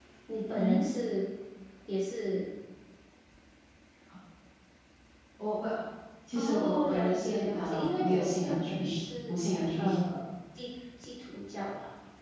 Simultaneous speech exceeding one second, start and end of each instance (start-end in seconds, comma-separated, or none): 6.3-8.8